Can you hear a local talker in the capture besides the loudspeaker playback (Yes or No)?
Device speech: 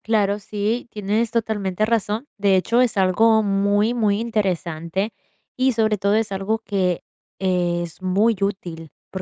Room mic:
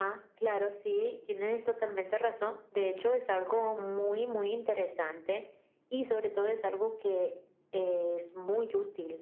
No